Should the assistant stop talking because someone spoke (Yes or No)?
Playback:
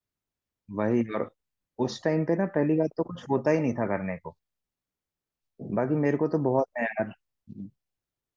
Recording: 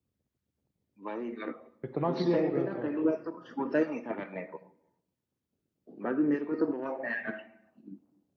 Yes